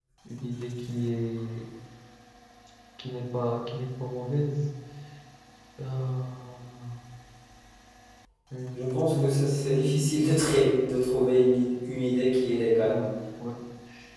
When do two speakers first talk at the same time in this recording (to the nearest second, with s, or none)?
9 s